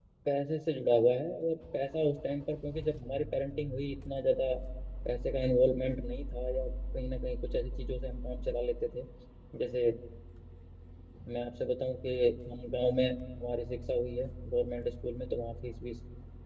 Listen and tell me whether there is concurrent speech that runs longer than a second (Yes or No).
No